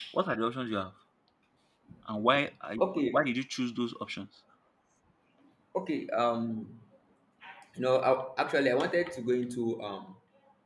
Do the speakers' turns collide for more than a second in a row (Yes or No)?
No